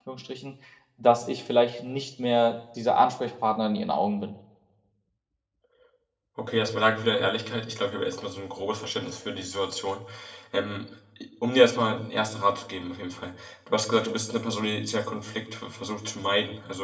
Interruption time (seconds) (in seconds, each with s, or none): none